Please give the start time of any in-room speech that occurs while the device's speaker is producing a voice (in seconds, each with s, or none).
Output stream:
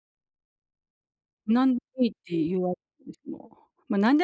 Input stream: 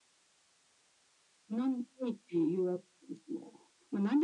none